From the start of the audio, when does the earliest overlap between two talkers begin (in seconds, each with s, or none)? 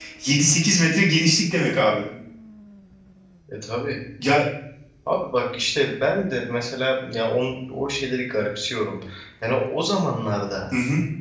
none